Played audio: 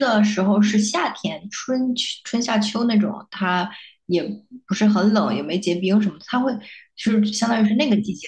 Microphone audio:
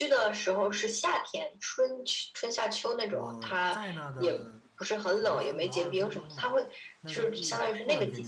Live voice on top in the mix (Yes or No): No